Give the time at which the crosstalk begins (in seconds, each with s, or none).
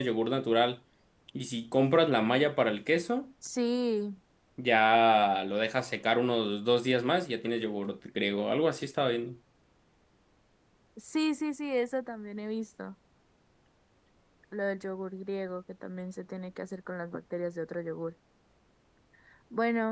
none